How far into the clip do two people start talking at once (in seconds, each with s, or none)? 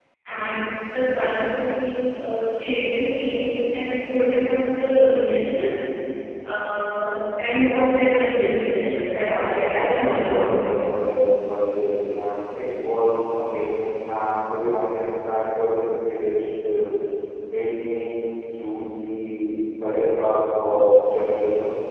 9.3 s